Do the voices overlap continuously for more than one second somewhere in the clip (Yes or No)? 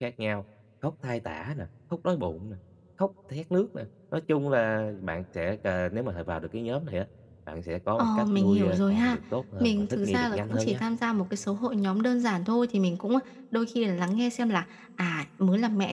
Yes